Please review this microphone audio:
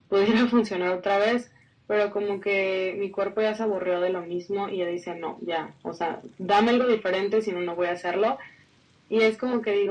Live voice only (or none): none